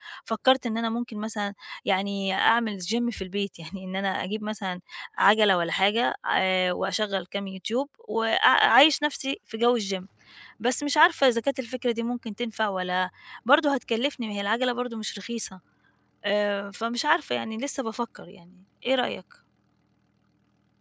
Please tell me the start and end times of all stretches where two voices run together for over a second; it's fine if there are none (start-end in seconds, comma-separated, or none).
none